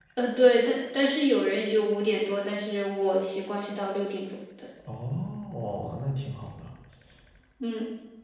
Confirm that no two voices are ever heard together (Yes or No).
Yes